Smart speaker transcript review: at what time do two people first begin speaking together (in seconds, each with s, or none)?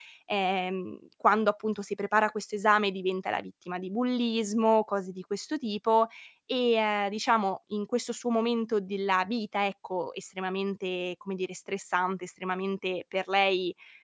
none